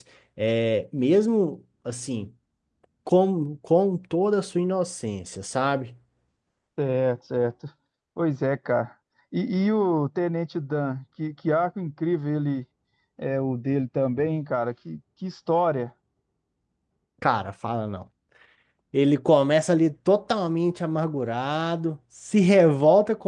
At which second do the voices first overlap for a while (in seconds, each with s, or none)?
none